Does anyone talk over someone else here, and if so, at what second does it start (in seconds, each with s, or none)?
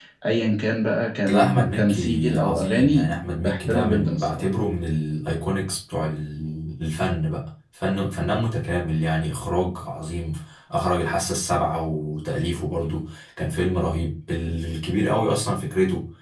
1.2 s